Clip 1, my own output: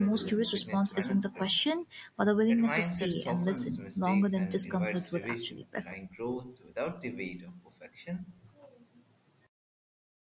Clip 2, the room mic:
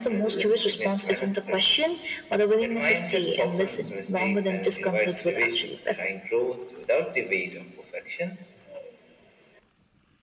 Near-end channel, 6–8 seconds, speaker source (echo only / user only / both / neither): echo only